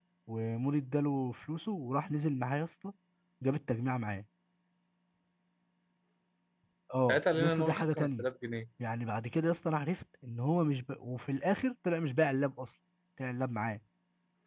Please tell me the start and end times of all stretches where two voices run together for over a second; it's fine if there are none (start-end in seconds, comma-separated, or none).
7.0-8.3